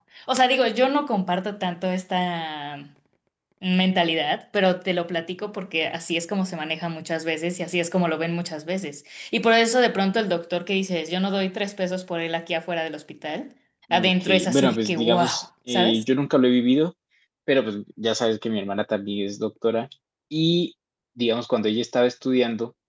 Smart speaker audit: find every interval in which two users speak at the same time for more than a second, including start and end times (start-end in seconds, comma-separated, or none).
13.9-15.2